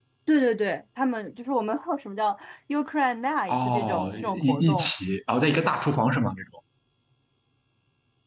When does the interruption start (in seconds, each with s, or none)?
3.5 s